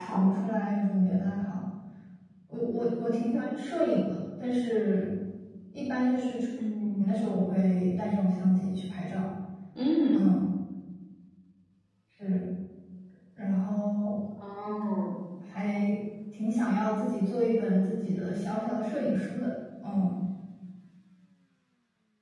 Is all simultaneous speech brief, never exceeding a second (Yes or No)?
Yes